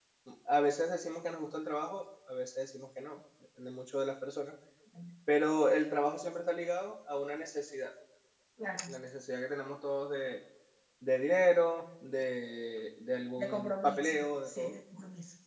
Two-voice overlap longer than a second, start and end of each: 13.4-14.7

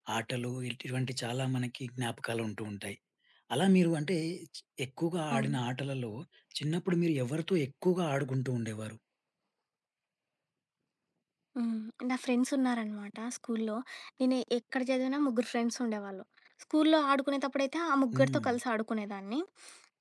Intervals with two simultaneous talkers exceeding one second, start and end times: none

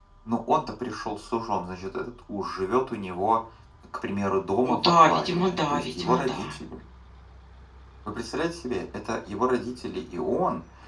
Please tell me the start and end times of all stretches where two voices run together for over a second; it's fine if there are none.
4.7-6.6

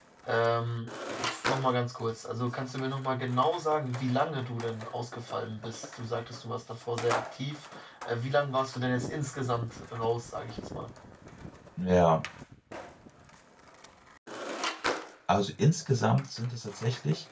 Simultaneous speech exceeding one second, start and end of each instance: none

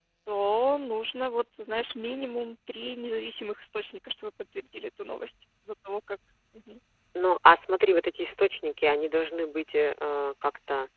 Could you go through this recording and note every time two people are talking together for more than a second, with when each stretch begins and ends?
none

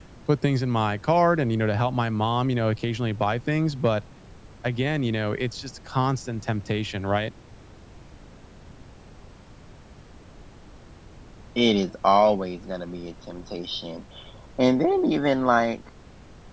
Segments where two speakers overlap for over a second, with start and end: none

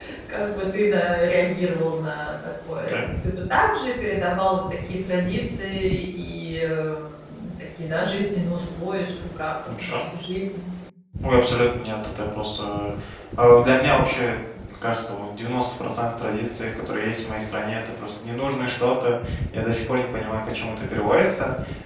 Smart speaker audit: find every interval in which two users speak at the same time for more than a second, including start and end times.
none

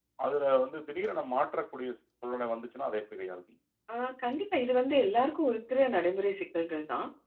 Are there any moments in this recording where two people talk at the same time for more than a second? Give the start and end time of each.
none

